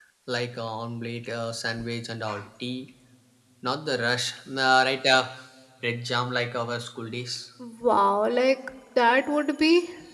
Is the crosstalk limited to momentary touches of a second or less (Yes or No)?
Yes